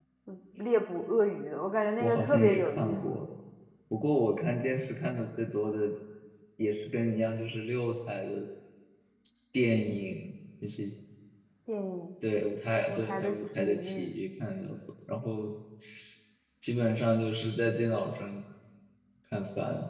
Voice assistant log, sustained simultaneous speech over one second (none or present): present